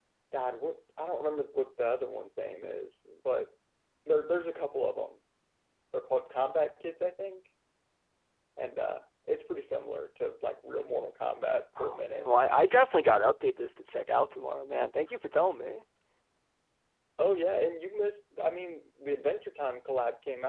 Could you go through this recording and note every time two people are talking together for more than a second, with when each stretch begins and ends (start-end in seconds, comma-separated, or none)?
none